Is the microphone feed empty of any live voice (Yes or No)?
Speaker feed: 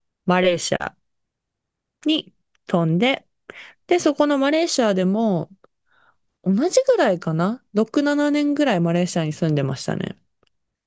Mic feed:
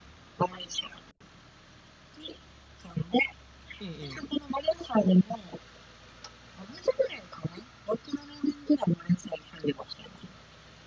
No